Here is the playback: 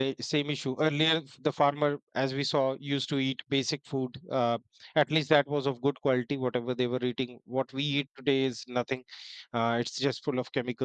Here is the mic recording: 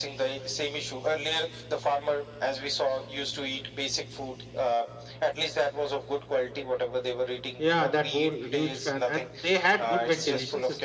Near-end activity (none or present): present